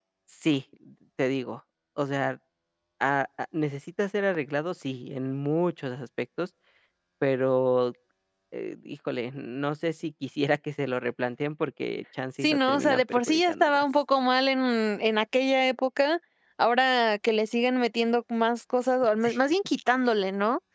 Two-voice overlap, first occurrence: 12 s

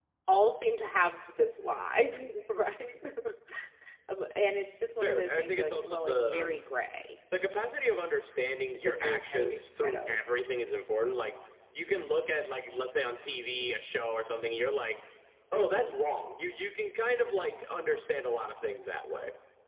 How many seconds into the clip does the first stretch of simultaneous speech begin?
5 s

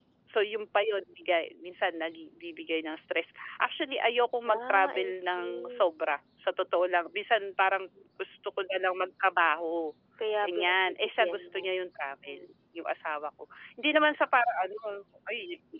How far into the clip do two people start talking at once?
4 s

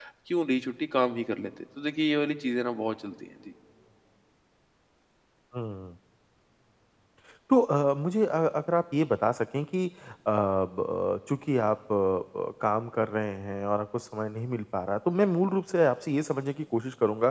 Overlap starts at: none

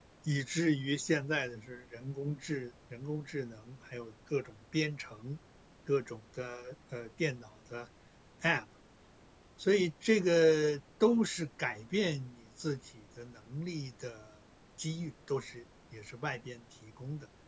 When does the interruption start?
none

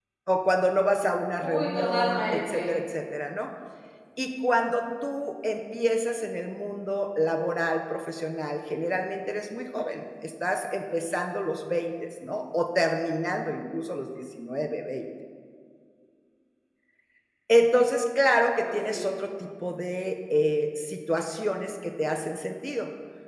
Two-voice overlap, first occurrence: 1 s

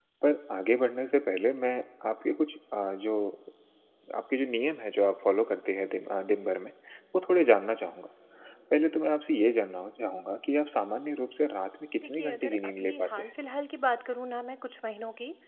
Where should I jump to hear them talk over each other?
12 s

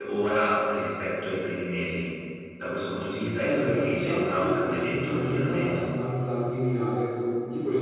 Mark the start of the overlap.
3 s

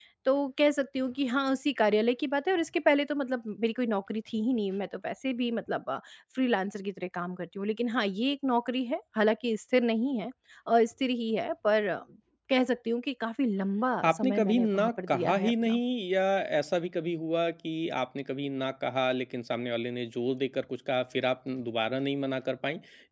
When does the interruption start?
14 s

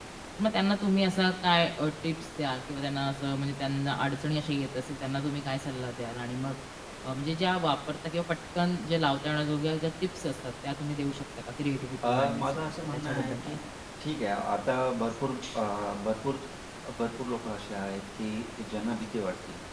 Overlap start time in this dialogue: 12 s

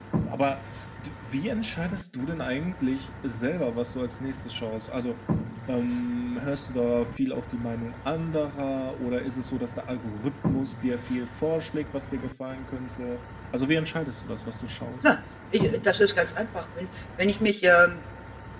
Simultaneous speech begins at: none

